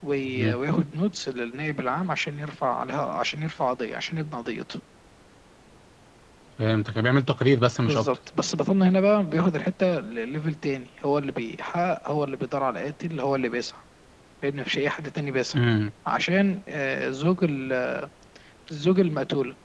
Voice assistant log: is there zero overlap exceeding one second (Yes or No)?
Yes